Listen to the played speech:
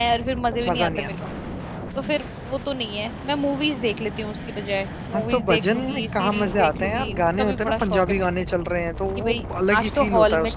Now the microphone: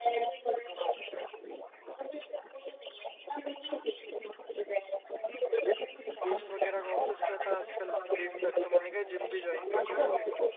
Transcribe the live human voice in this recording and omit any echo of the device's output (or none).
दोस्त वगैरह का ऑफिस रहता है आजकल लेट तक तो मैंने क्या जिम भी ज्वाइन कर लिया